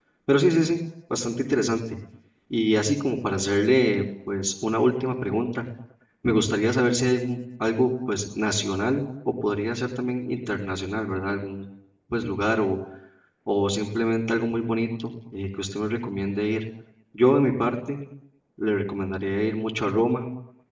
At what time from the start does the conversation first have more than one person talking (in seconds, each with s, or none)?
none